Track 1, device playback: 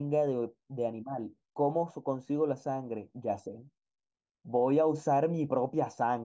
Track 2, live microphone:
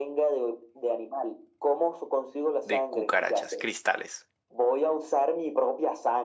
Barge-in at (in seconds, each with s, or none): 2.6 s